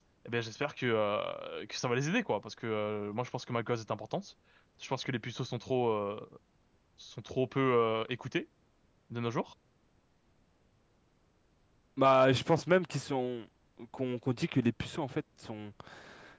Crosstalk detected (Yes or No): No